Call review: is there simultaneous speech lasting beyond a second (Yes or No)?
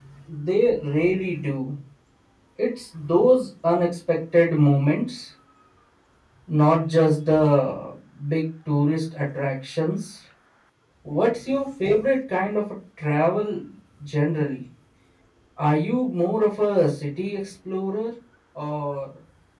No